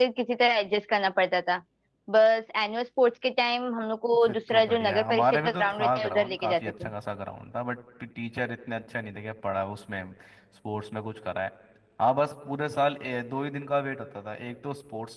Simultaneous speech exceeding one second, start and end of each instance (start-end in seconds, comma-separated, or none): 4.2-6.9